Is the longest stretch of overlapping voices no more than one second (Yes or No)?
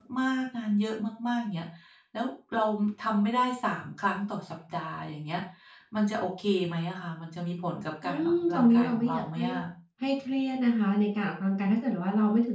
No